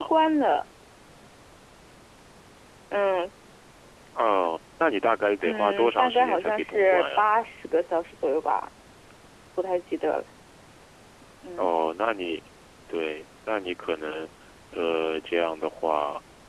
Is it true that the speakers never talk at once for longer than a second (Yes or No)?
No